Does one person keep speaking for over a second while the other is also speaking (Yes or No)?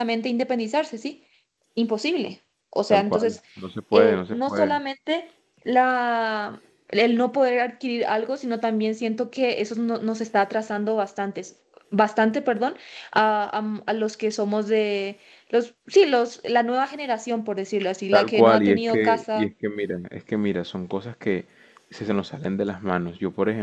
Yes